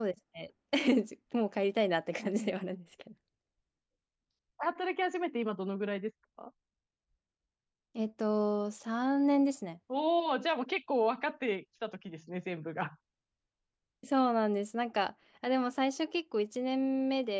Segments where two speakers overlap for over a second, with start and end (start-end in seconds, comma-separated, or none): none